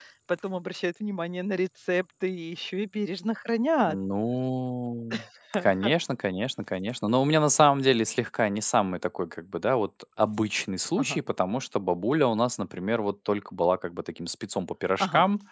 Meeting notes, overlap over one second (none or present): none